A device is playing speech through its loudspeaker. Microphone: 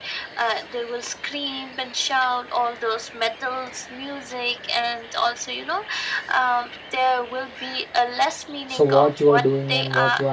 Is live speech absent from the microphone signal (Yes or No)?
No